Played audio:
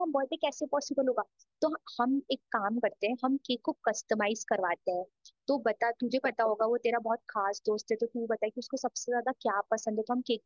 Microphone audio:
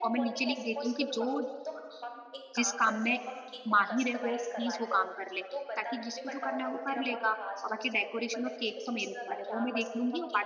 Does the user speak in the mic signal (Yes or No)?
Yes